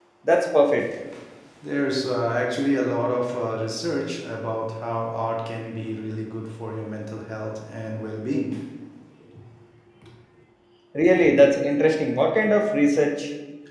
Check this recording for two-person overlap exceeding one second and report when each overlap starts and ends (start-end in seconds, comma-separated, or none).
none